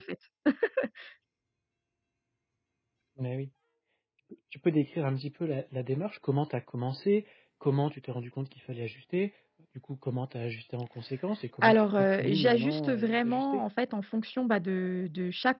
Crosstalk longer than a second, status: present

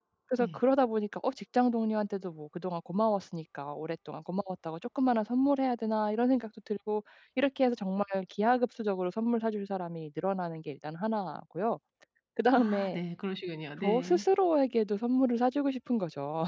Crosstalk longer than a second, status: none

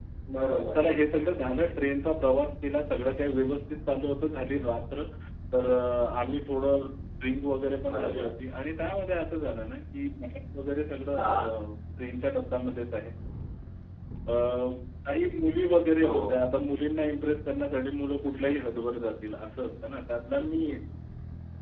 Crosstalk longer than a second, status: none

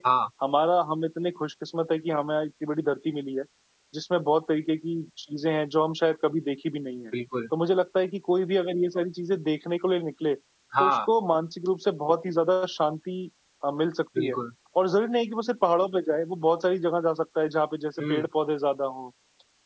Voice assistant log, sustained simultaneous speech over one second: none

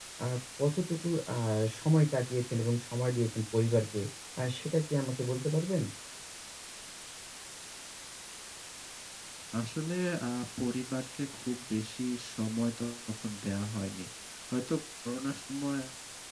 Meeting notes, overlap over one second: none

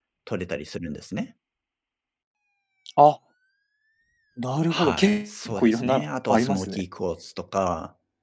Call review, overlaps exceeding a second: present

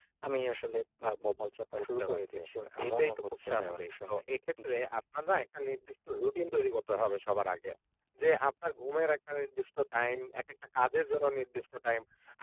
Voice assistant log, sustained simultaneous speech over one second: present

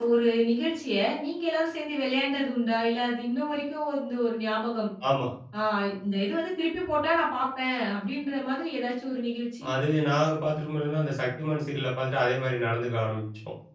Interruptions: none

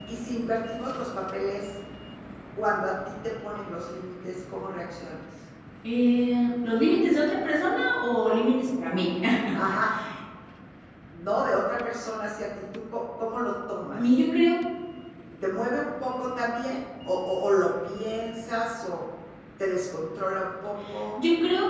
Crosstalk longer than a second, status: none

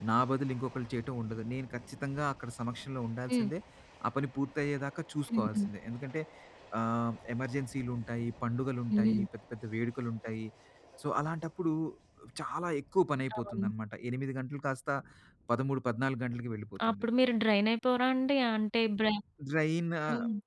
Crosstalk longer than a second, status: none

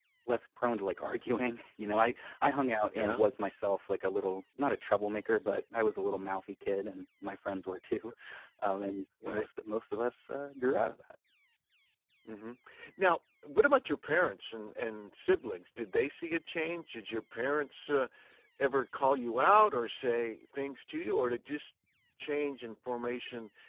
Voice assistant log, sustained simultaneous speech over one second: none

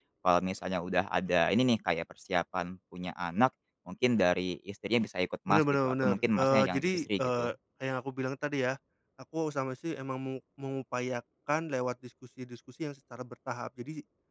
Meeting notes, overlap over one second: present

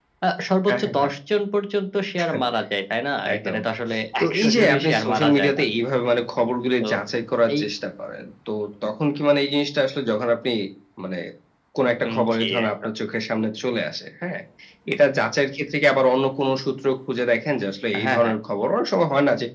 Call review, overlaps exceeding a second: present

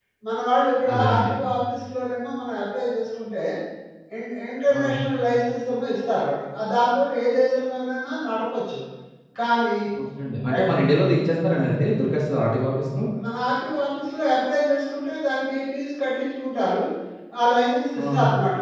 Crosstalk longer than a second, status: none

